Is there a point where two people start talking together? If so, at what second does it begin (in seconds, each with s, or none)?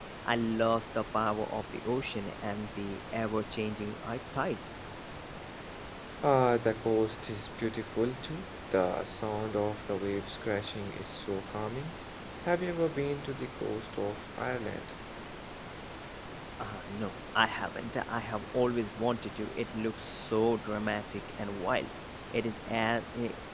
none